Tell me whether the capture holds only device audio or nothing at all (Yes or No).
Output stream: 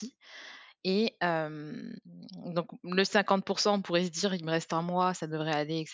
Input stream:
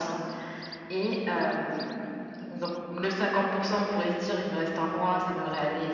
Yes